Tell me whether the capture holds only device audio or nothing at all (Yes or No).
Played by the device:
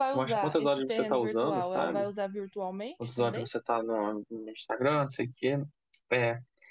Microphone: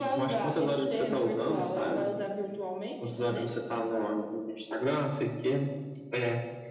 Yes